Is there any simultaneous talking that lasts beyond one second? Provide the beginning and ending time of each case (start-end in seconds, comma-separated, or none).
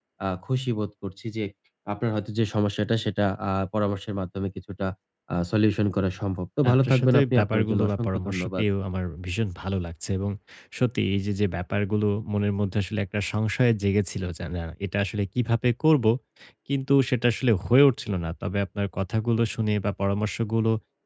6.7-8.6